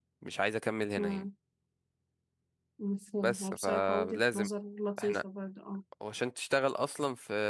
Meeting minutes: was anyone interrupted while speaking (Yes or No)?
Yes